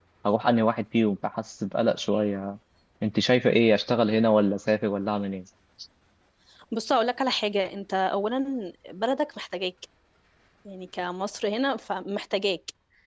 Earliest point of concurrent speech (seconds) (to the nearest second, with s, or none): none